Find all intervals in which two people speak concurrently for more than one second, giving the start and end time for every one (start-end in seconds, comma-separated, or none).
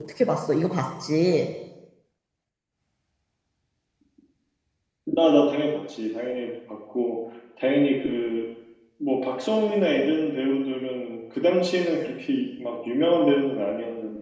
none